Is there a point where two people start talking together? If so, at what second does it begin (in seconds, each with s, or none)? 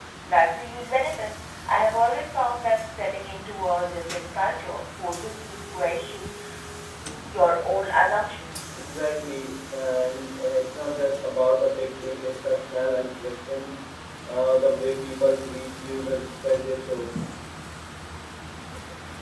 none